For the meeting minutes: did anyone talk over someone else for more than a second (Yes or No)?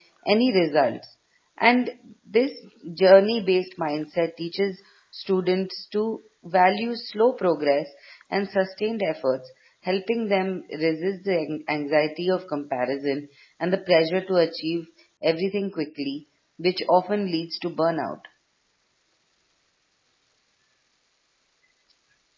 No